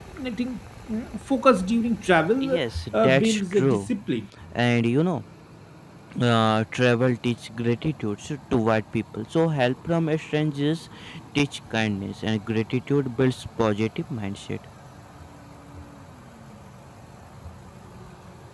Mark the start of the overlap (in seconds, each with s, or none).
2.4 s